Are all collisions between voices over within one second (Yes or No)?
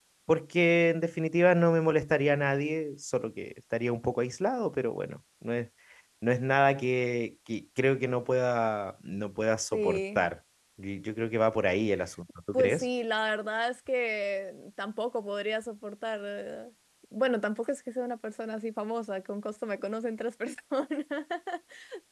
Yes